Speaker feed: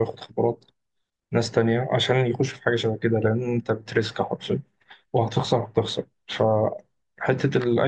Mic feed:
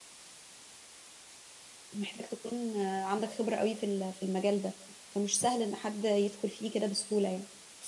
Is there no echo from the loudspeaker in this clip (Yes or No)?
Yes